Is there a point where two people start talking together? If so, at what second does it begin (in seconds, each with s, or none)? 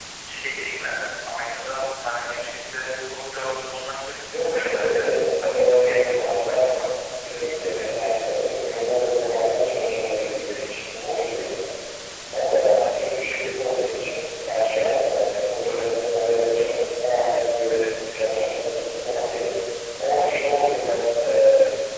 4.5 s